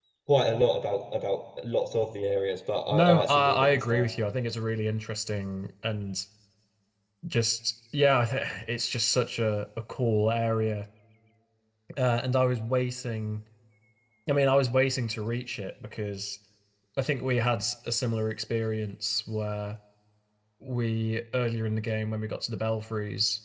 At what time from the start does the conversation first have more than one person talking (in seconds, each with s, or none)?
2.9 s